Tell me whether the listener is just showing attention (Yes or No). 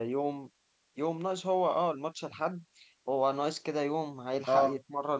Yes